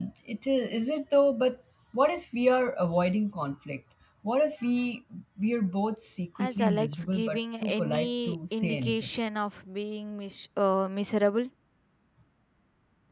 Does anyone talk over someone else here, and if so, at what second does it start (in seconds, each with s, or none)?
6.4 s